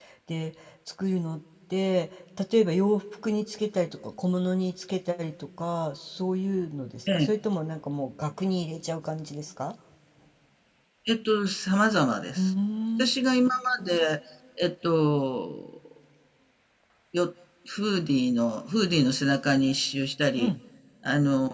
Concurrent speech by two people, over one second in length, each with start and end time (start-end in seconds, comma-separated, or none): none